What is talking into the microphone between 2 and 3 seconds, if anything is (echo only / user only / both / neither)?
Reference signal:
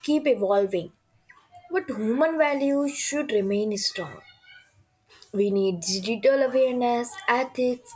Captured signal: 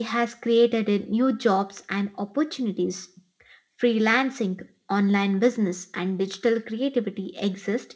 user only